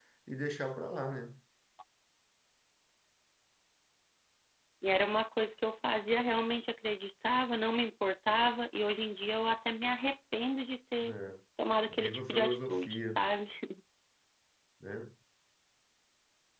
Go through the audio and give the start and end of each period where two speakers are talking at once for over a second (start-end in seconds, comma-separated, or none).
11.9-13.2